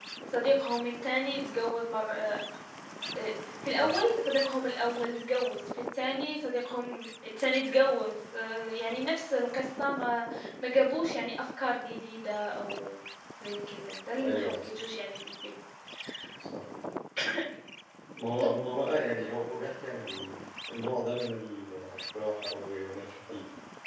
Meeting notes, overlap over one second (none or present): none